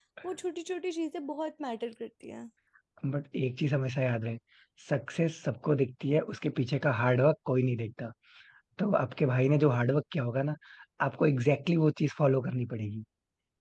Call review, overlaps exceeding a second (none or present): none